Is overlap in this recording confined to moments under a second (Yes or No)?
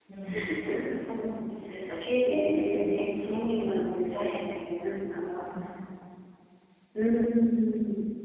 No